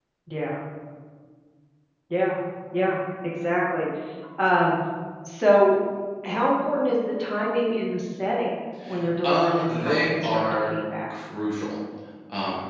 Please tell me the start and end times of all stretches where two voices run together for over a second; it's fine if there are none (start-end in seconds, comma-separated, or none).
9.2-10.6